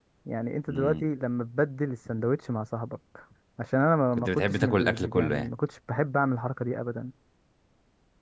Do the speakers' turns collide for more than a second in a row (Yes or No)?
Yes